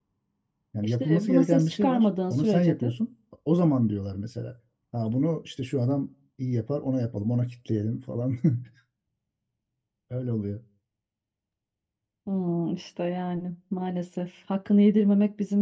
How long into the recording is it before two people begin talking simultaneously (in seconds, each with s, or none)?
0.8 s